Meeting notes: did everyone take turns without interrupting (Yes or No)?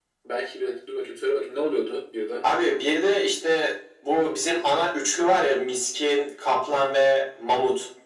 Yes